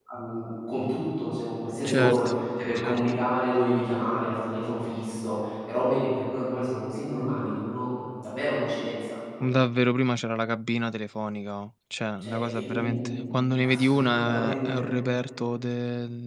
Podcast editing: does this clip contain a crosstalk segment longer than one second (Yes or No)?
Yes